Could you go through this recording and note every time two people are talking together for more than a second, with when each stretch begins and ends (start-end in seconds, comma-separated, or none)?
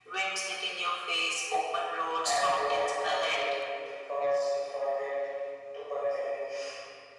2.2-3.5